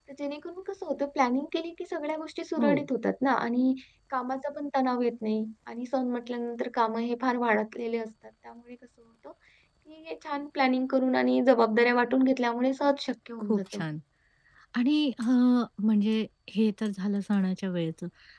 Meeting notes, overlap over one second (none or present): none